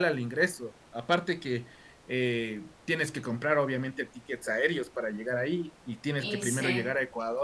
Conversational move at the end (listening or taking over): listening